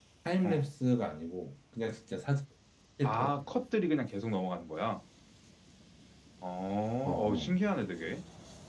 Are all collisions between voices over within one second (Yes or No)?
Yes